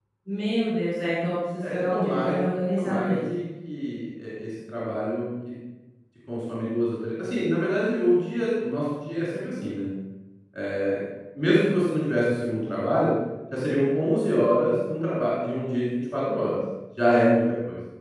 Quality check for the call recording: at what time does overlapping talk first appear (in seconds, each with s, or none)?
1.6 s